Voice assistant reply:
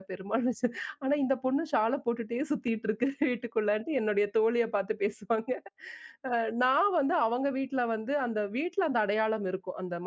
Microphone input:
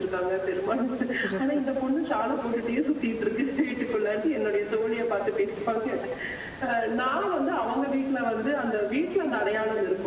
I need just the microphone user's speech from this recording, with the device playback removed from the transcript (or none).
சிறப்பு.